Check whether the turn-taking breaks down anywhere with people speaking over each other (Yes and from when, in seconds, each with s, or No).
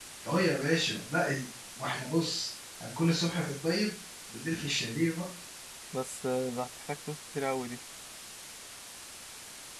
No